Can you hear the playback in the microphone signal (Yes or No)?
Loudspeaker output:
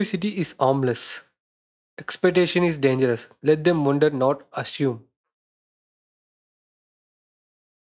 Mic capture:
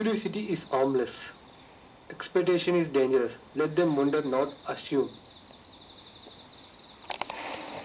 Yes